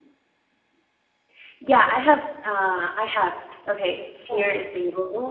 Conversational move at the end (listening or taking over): listening